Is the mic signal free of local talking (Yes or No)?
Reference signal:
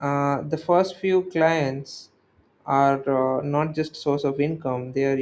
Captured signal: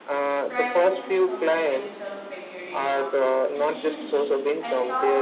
No